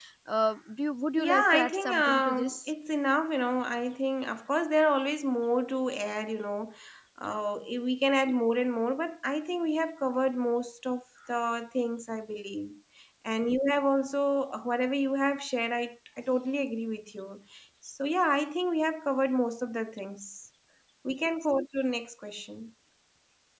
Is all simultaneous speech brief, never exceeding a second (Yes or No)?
No